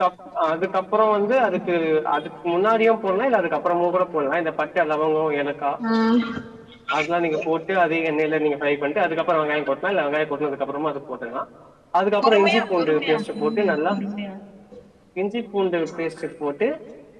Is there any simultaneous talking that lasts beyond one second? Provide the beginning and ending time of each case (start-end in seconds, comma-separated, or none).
12.2-13.9